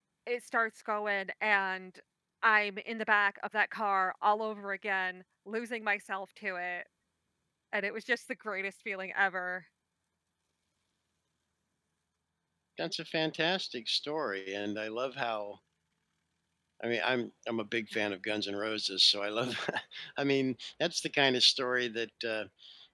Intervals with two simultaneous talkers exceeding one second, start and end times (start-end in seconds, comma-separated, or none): none